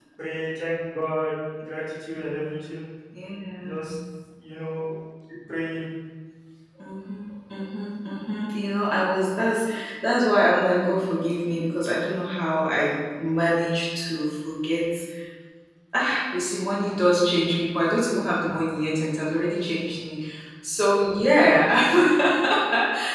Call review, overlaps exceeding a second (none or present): none